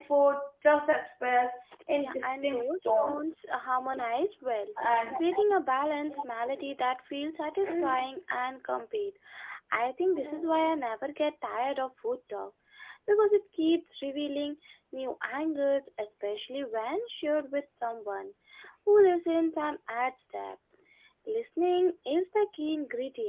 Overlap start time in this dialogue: 2.0 s

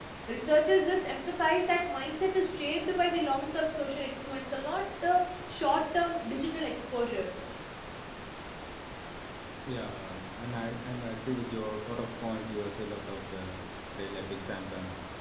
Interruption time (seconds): none

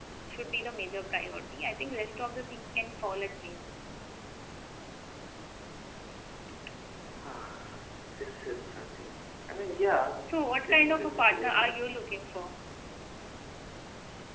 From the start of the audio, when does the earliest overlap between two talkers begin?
10.3 s

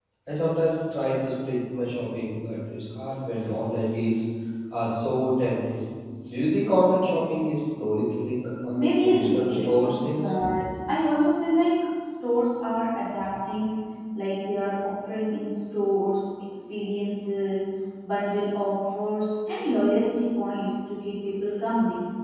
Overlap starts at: 8.8 s

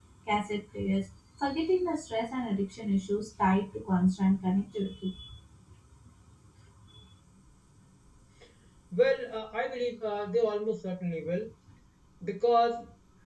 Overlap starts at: none

